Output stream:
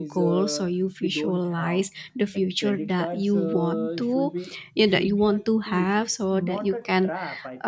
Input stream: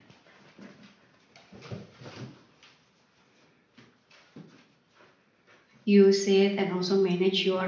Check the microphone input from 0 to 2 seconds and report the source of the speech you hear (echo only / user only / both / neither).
neither